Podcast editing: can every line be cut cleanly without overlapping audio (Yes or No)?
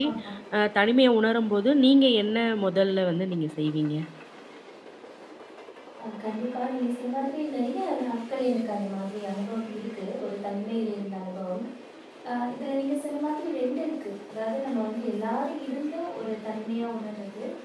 Yes